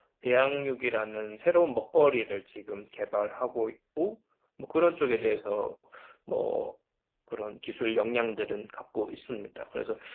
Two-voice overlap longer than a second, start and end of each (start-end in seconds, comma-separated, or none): none